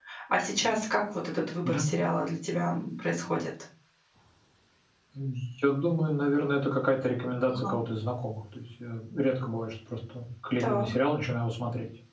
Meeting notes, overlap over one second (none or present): none